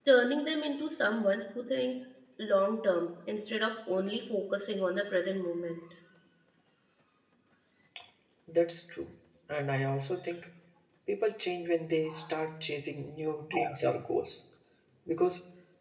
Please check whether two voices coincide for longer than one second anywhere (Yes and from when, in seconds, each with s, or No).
No